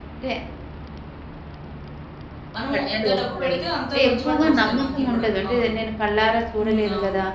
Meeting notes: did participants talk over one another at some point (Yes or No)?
Yes